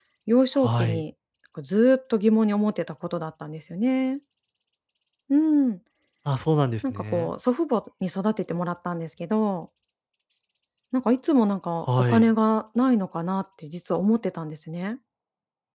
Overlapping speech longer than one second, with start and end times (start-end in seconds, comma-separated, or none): none